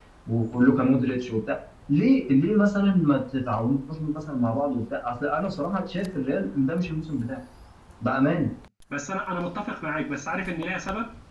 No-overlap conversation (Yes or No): Yes